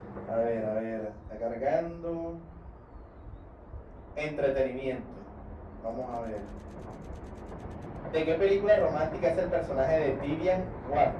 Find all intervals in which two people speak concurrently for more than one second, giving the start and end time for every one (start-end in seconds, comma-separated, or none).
none